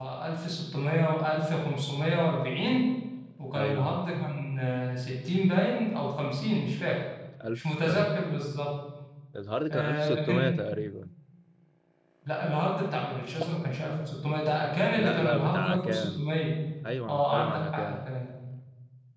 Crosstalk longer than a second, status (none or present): present